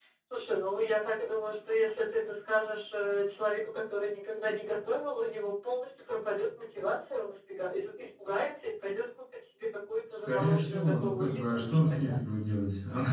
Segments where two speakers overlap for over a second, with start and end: 10.3-12.2

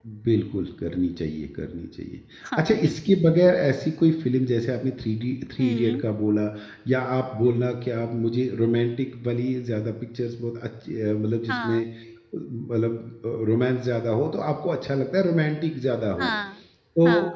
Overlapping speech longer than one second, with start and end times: none

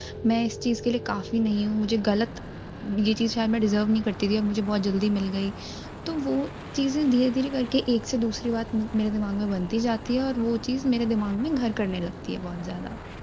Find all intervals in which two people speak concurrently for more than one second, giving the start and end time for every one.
none

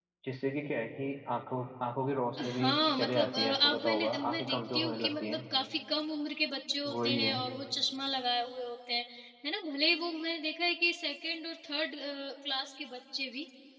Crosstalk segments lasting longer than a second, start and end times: 2.4-5.4

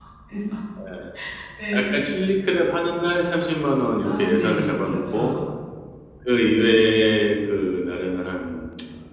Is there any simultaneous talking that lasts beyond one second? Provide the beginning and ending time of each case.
4.0-5.3

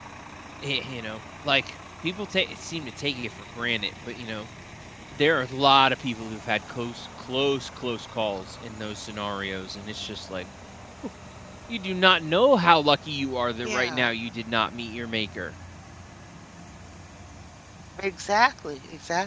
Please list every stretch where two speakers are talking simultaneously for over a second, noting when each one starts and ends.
none

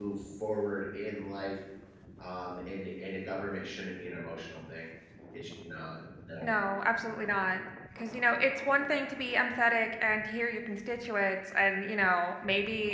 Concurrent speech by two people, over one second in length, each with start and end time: none

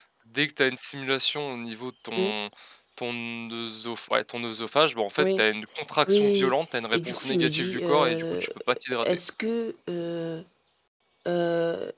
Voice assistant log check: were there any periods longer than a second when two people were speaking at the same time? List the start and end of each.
6.9-8.4

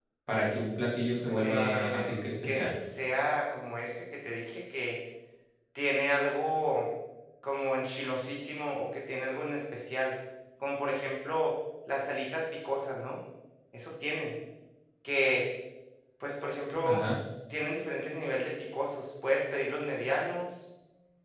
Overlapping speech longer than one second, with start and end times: 1.3-2.7

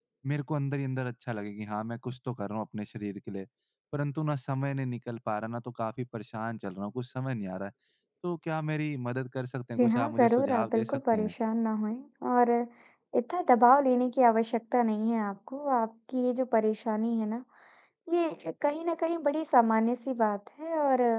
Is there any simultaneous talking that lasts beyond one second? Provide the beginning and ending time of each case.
9.8-11.3

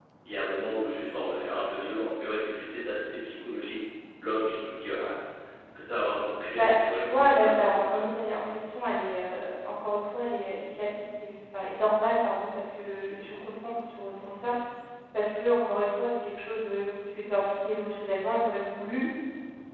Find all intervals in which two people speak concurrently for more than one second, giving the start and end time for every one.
6.5-8.0

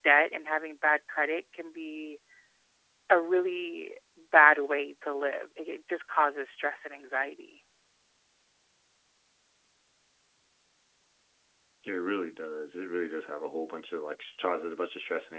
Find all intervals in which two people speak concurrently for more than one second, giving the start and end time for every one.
none

